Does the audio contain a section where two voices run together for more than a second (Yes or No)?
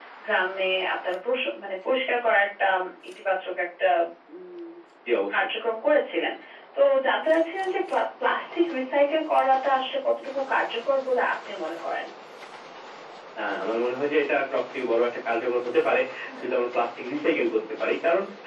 No